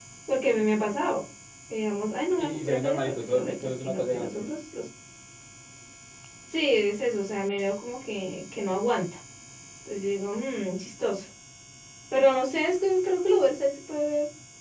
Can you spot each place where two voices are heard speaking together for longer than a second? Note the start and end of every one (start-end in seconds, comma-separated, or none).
2.3-4.4